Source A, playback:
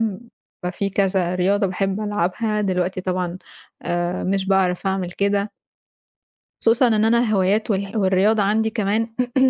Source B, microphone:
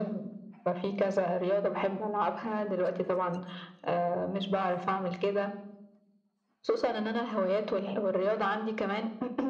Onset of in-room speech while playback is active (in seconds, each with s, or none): none